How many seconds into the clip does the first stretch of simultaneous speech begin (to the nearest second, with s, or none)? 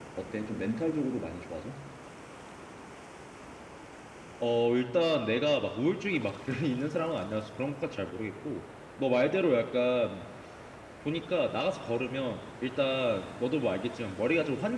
none